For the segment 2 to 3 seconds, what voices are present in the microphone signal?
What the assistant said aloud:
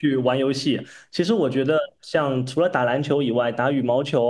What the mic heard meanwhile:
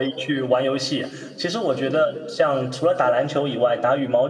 echo only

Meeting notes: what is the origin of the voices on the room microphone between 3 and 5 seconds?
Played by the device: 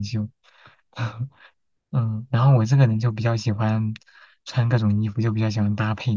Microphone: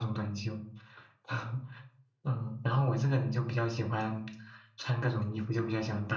echo only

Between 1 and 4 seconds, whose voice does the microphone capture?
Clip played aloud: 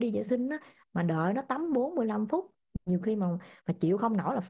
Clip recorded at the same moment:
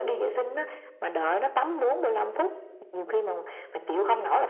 echo only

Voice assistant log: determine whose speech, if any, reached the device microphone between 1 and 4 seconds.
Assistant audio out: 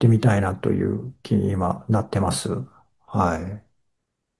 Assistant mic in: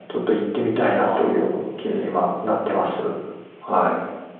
both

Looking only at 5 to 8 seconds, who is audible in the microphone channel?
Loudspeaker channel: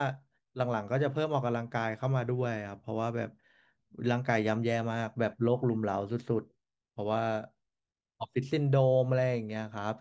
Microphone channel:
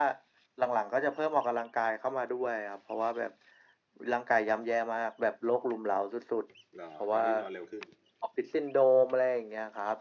both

